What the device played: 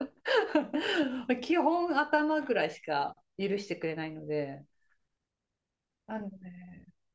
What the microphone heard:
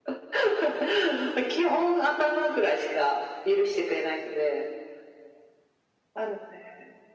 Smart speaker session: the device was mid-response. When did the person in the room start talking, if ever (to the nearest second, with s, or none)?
none